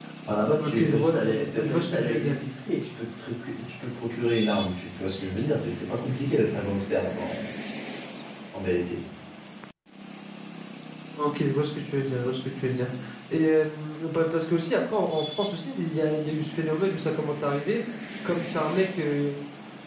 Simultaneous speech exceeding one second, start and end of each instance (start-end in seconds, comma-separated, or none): 0.6-2.3